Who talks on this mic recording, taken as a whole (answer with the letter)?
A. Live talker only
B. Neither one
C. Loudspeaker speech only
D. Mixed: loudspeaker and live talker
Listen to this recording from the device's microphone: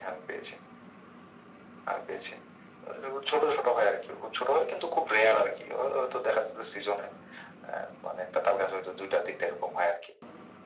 C